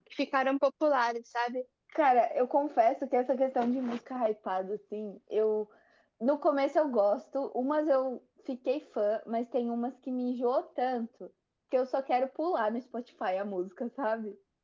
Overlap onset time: none

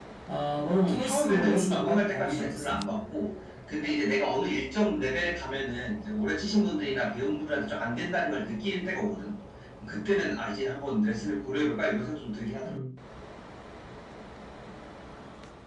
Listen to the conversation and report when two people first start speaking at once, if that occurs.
0.8 s

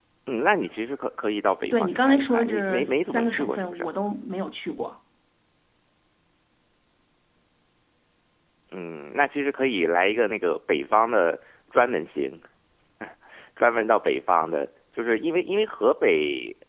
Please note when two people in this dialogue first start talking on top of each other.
1.6 s

